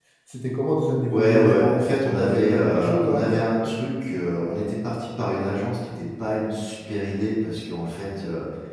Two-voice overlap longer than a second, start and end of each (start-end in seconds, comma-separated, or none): 1.1-3.4